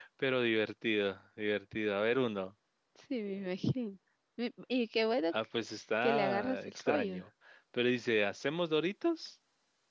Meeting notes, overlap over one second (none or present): present